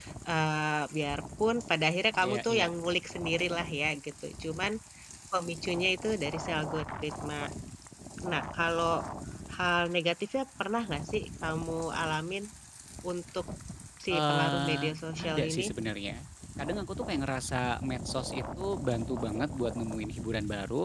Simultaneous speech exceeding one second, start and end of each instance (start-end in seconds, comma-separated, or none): 14.1-15.7